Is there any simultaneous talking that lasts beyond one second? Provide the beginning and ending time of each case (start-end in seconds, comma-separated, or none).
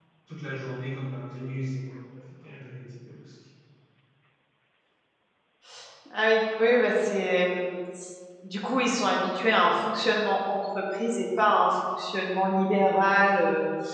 none